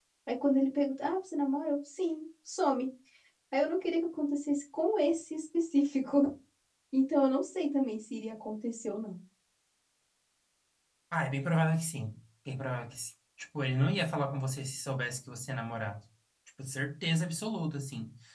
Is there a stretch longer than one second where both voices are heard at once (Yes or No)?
No